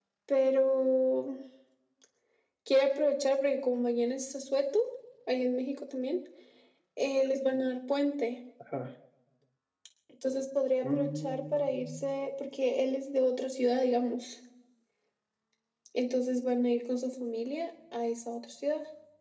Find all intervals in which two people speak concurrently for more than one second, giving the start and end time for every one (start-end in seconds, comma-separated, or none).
10.8-12.1